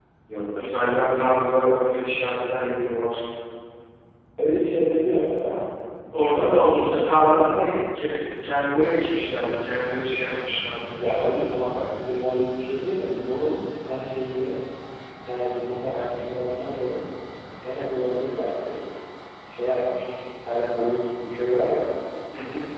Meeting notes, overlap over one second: present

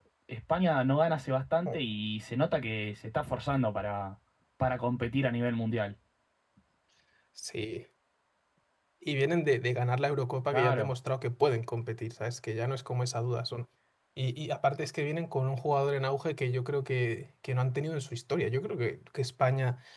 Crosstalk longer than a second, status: none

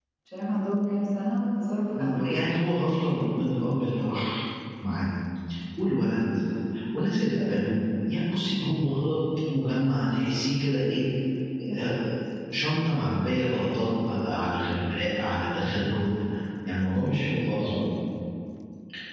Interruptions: present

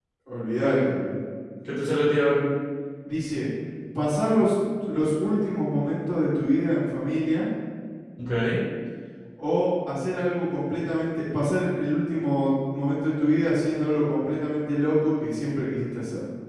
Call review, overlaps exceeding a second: none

